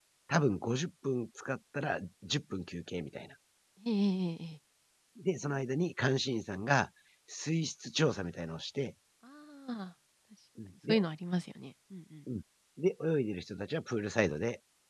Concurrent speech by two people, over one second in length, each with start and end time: none

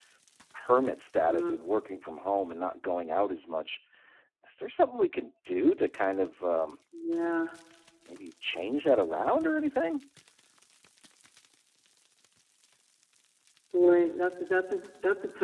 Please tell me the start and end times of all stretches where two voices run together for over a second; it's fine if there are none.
none

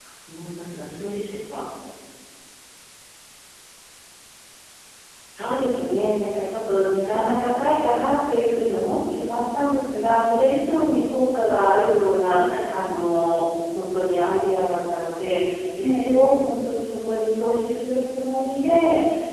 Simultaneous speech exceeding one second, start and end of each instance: none

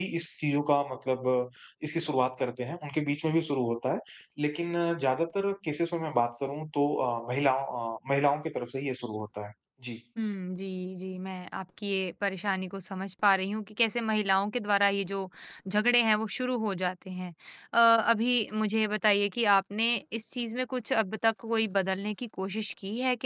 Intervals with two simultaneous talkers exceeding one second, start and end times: none

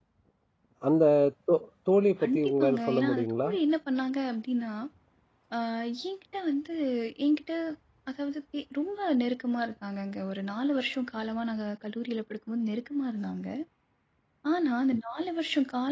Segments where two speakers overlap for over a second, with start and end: 2.2-3.5

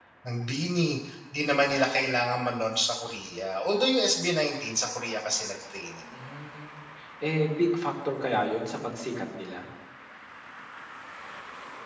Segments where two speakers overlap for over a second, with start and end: none

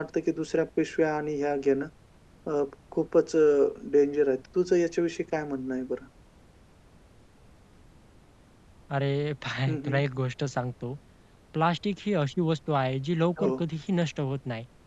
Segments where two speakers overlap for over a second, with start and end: none

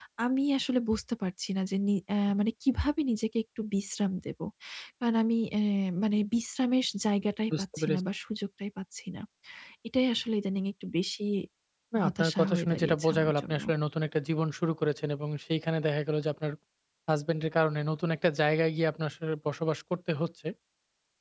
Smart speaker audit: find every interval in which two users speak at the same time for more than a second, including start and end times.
12.0-13.6

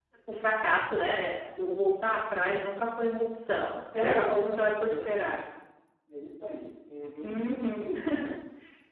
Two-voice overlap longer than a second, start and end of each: 3.9-5.3

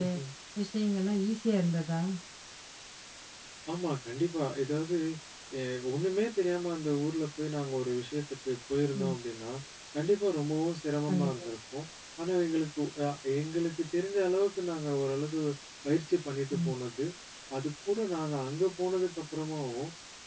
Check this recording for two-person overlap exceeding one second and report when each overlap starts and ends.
none

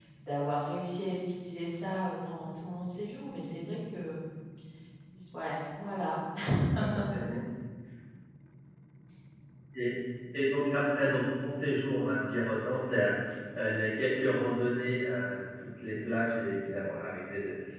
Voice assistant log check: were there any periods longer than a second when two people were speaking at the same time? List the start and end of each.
none

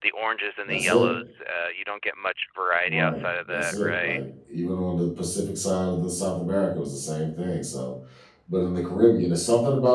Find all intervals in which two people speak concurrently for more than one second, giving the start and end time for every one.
2.9-4.2

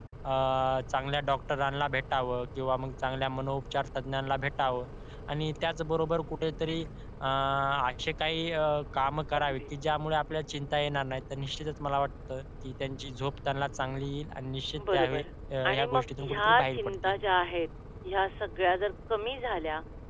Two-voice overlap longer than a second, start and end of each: 15.7-17.1

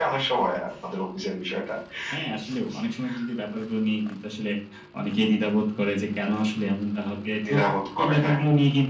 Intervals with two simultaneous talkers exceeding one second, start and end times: none

